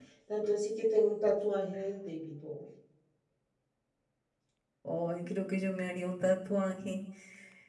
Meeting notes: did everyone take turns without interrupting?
Yes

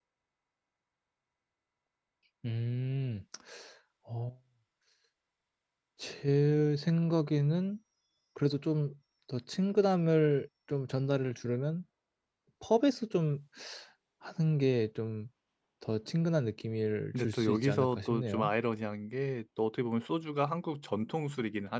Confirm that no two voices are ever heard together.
No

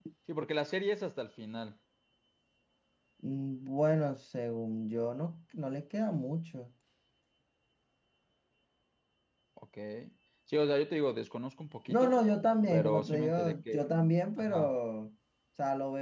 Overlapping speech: Yes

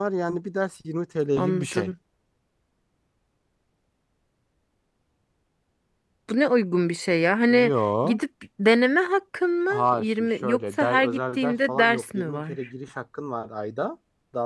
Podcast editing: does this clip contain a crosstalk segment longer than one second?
Yes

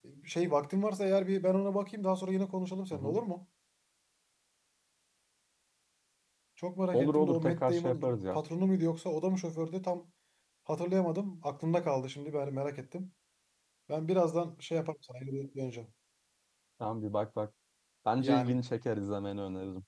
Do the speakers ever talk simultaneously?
Yes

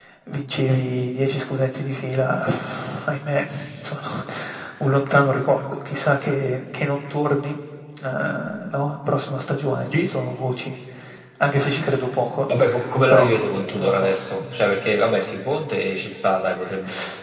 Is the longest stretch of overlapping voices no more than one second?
No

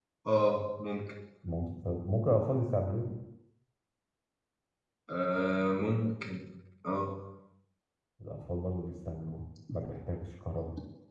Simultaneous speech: No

